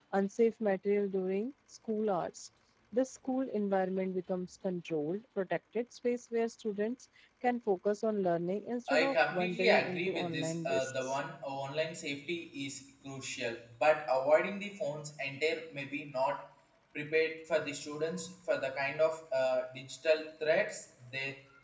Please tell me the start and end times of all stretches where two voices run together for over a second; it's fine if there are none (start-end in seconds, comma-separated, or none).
8.9-11.2